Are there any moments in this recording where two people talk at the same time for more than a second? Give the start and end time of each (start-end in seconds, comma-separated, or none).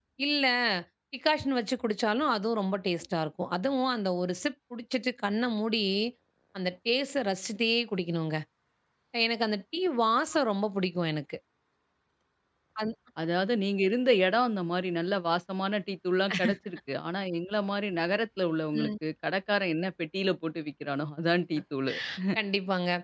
none